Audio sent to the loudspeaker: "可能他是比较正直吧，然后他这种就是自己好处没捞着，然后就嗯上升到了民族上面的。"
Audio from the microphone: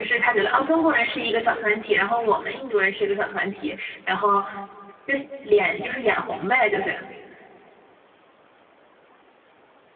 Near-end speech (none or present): present